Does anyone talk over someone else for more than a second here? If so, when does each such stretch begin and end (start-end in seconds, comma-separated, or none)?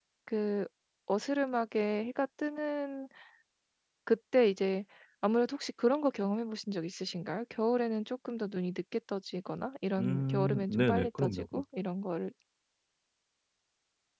10.0-11.6